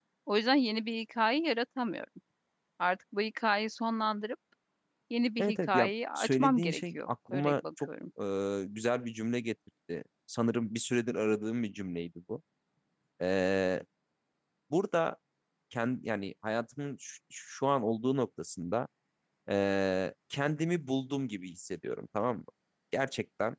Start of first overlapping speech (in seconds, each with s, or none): 5.4 s